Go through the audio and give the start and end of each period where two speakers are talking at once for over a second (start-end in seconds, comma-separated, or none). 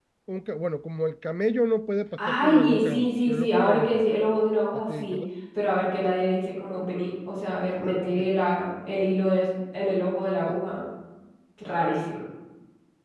2.2-4.0